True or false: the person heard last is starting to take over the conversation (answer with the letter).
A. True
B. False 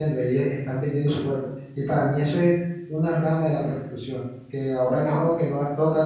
B